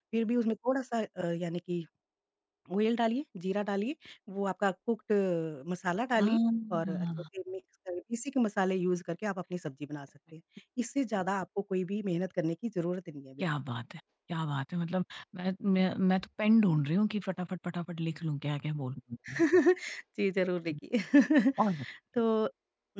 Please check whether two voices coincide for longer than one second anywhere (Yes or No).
No